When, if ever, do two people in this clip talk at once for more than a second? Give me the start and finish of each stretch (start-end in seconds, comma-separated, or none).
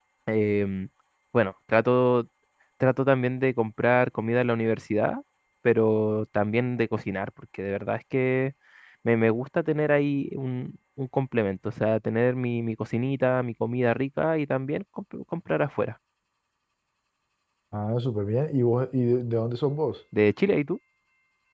none